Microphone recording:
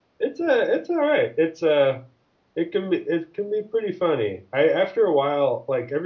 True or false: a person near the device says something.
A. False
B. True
B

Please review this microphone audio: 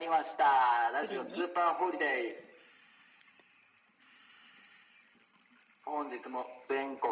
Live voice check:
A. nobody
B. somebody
B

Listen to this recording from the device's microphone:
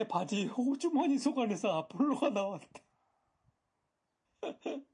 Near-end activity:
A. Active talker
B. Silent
B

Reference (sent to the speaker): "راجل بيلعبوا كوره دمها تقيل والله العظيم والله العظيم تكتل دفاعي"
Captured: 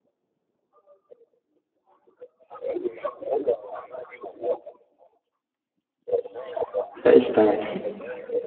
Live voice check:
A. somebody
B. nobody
A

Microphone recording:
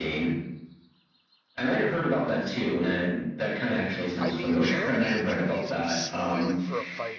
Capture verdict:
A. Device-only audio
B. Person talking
B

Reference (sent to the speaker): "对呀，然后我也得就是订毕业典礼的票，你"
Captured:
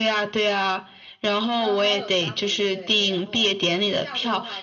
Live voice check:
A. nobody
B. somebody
B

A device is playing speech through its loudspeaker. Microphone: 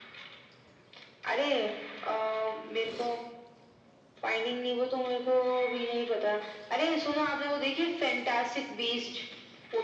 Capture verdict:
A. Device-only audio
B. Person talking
A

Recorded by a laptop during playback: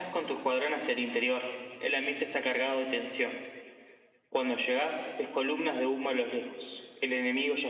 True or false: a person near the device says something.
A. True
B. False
B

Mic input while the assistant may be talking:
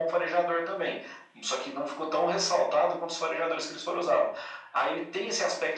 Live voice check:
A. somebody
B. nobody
B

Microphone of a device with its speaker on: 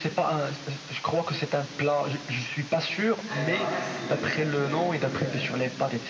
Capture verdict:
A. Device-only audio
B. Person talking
B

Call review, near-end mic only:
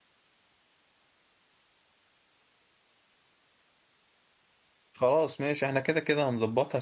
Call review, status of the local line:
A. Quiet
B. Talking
B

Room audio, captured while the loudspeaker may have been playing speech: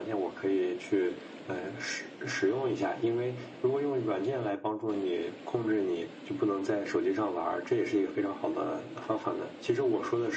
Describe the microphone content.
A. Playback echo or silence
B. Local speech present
A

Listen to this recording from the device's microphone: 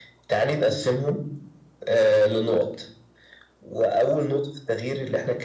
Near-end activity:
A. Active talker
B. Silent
B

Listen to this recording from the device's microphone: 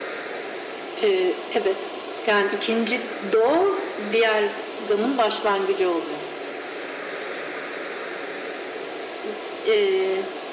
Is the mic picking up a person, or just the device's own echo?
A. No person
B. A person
A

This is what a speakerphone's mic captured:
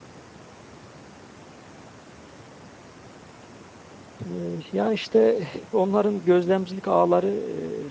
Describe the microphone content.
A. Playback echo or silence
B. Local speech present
B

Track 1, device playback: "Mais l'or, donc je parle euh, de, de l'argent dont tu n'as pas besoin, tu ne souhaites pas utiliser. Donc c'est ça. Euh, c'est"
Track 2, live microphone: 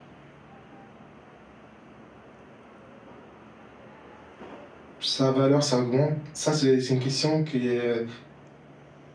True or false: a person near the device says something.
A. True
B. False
A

